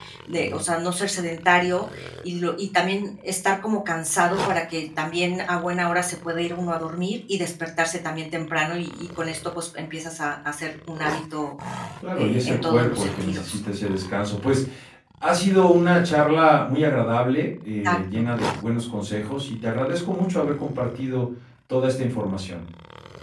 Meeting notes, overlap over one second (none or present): present